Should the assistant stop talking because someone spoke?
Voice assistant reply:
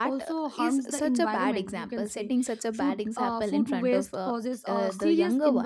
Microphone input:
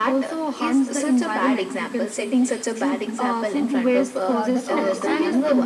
Yes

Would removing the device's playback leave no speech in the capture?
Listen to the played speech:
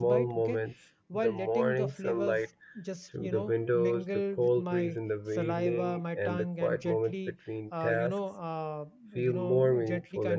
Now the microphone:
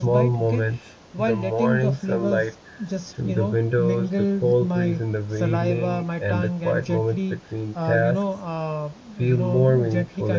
Yes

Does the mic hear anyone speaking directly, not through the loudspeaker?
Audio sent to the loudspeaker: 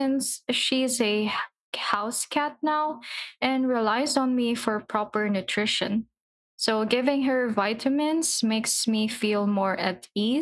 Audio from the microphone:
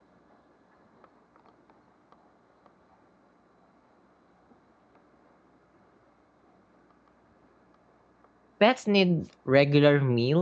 Yes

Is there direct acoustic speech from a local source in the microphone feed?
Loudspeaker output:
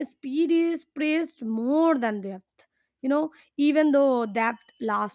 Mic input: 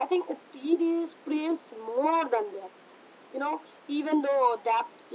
No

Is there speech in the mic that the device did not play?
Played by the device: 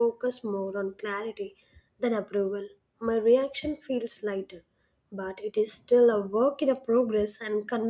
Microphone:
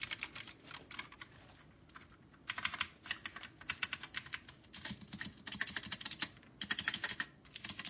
No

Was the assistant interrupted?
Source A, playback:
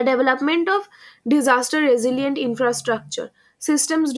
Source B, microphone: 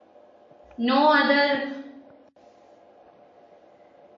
Yes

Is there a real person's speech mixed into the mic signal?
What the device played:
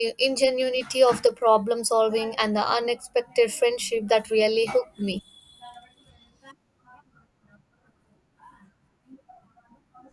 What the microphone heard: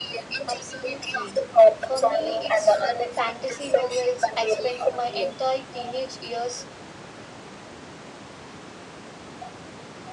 Yes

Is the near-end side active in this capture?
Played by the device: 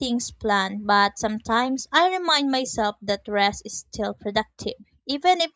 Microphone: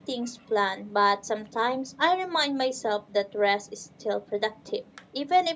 No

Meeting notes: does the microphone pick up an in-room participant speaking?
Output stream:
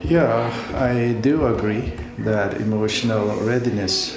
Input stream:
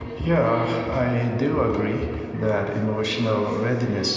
No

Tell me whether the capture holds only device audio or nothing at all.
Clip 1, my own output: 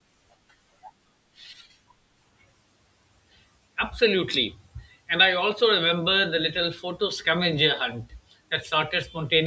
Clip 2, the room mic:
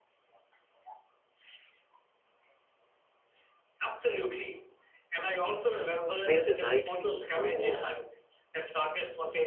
No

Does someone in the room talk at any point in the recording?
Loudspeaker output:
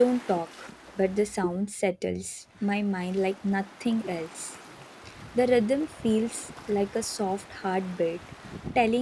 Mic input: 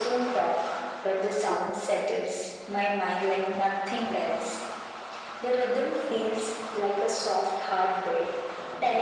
No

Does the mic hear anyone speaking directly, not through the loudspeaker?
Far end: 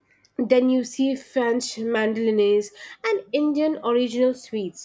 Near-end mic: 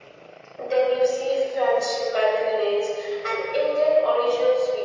No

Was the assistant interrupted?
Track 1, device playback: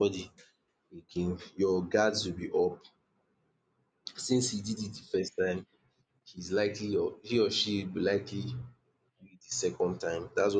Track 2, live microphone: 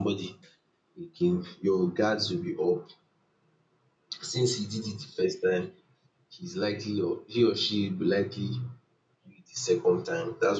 No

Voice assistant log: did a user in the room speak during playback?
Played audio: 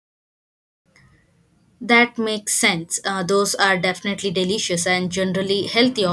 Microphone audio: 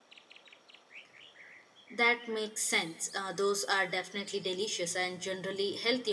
No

